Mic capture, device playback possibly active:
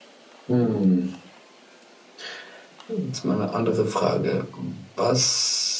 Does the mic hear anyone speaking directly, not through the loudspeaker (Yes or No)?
Yes